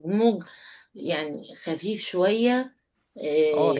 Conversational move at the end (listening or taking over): taking over